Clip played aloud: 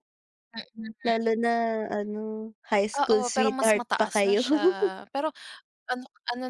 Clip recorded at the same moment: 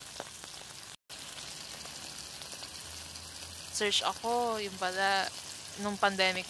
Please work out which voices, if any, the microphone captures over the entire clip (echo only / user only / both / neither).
user only